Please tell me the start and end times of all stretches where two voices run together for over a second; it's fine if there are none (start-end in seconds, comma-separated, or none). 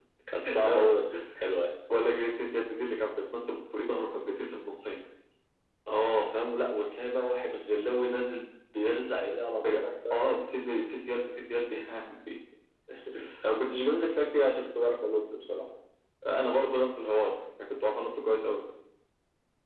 none